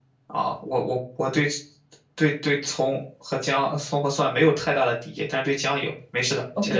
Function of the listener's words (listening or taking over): taking over